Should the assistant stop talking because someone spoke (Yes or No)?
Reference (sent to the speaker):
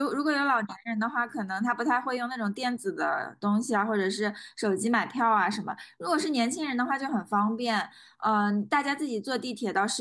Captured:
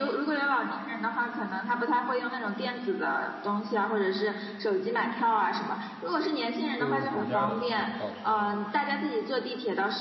Yes